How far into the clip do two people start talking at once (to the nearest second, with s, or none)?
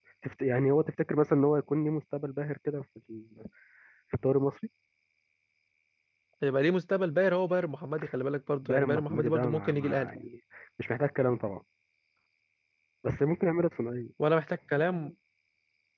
9 s